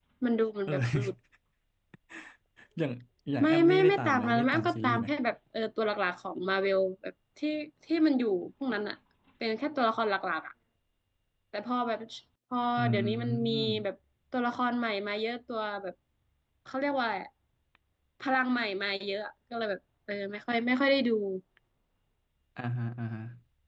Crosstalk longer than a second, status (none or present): present